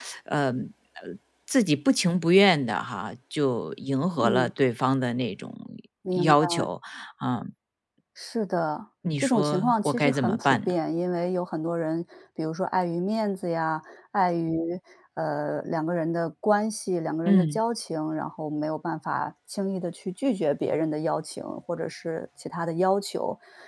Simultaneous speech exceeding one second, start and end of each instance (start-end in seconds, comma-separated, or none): 9.2-10.7